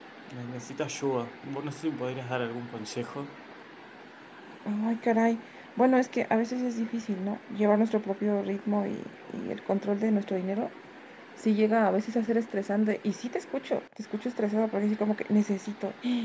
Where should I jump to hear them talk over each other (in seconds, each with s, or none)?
none